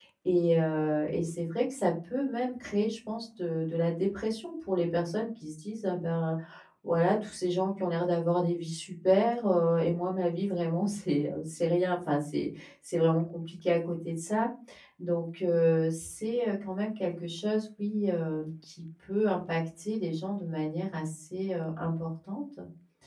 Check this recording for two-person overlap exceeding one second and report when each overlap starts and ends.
none

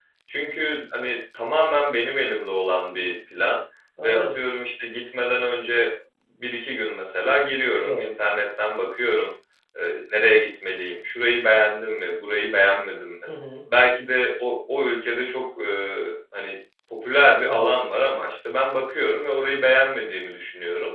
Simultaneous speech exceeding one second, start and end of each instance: none

